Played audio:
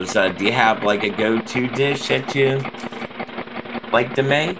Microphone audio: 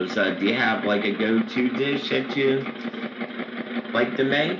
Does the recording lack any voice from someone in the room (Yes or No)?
Yes